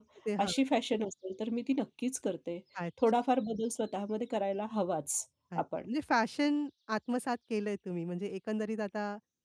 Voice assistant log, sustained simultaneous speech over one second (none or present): none